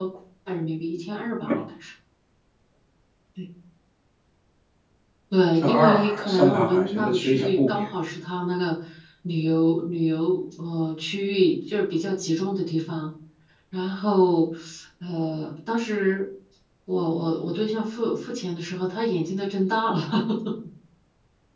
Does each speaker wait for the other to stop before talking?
No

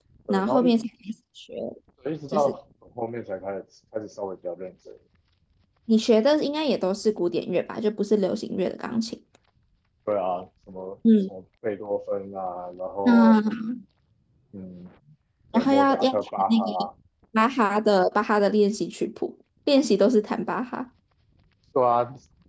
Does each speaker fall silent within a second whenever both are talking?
No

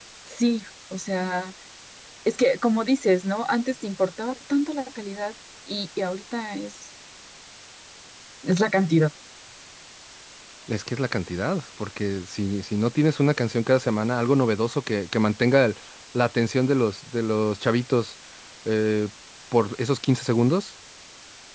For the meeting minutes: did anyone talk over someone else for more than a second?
No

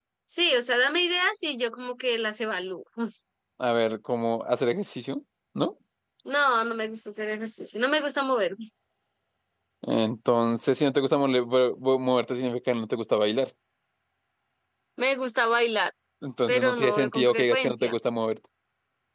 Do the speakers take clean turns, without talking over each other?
No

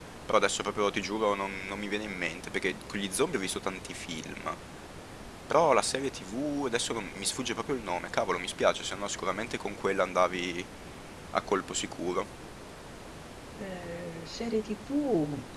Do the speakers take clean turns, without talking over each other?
Yes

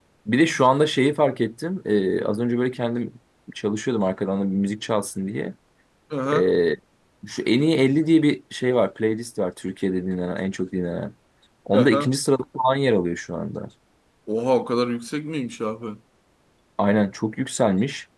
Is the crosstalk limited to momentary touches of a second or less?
Yes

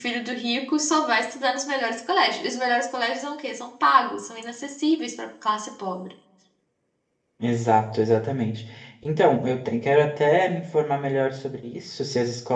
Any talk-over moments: No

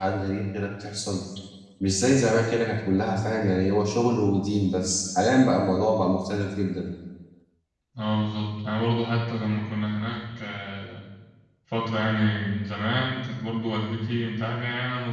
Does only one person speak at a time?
Yes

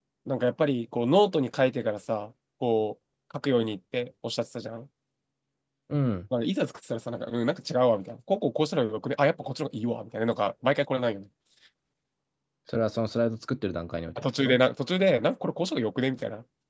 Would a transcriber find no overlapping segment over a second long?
Yes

